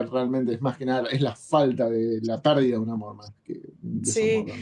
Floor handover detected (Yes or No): Yes